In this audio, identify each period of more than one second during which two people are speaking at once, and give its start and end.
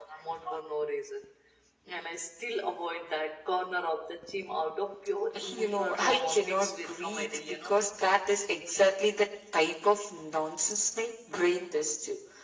5.5-7.8

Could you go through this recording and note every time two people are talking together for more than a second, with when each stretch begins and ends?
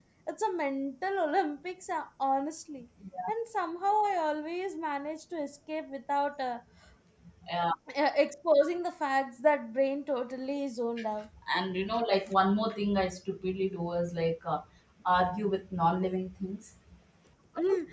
none

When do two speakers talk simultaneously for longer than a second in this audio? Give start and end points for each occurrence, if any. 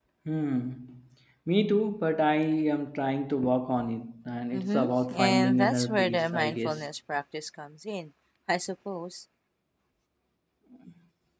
4.5-6.8

